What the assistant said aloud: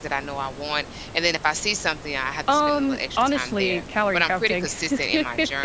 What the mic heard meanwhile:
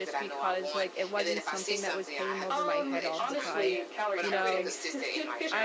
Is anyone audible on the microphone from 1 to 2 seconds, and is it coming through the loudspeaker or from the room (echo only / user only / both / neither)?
both